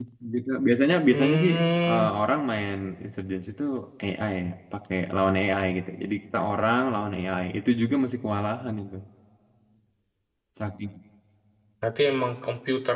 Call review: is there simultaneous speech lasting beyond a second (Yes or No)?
No